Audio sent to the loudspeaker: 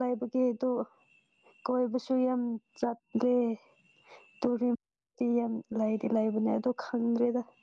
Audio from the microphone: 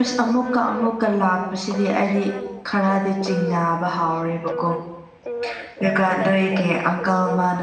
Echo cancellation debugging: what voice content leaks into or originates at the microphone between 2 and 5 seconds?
both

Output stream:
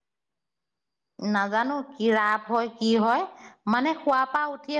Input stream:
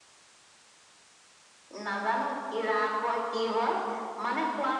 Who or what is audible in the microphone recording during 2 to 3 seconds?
echo only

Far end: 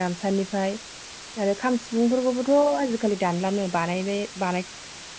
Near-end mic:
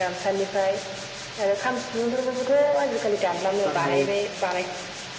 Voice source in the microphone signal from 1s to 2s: echo only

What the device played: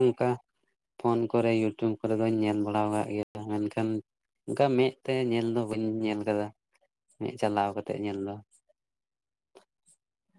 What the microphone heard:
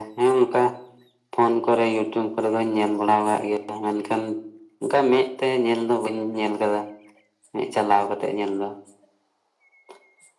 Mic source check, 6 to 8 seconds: echo only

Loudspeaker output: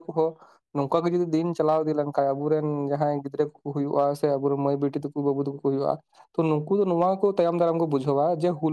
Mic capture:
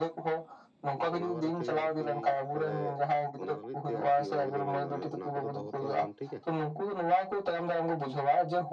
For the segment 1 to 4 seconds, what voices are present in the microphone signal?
both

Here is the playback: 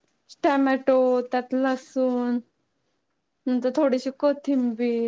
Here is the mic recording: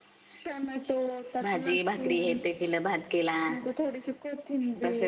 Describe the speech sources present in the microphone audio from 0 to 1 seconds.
echo only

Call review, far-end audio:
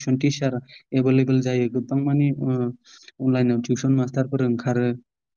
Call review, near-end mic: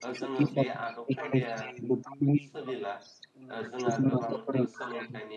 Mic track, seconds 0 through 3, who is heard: both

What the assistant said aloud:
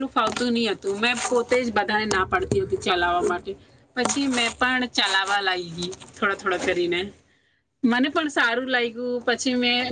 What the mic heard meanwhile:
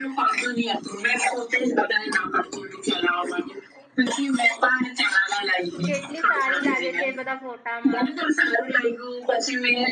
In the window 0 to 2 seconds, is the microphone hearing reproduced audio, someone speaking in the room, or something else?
echo only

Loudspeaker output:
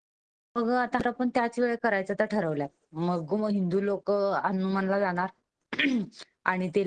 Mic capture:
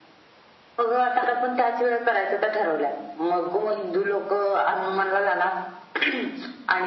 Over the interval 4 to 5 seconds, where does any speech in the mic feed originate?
echo only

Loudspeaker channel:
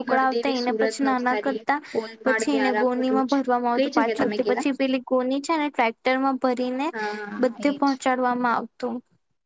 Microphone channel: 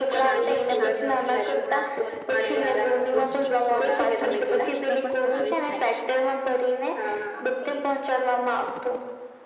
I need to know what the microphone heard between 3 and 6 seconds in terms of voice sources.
both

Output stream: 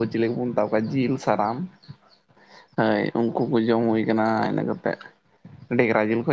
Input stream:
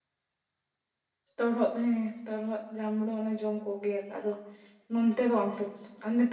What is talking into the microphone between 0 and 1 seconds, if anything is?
neither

